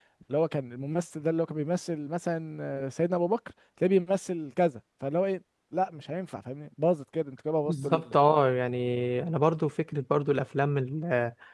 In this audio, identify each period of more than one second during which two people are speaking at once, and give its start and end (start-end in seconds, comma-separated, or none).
none